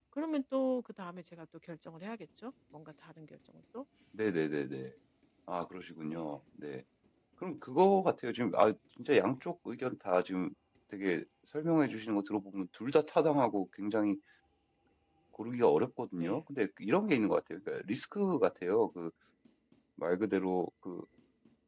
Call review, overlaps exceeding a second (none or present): none